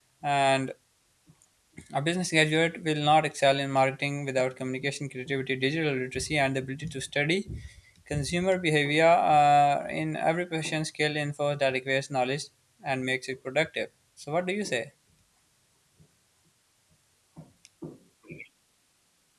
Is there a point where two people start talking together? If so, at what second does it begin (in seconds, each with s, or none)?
none